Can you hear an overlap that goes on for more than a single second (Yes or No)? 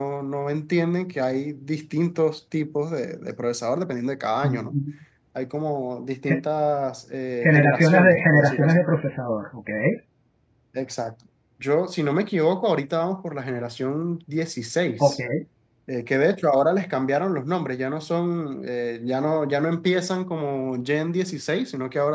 Yes